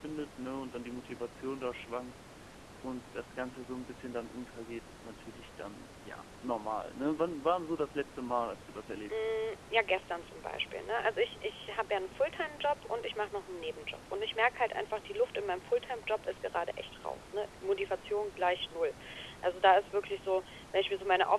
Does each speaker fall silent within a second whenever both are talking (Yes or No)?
Yes